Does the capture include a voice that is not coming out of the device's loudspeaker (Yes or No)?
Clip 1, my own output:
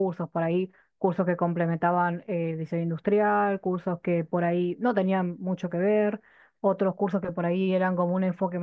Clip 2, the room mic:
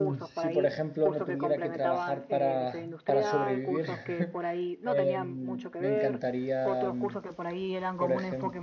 Yes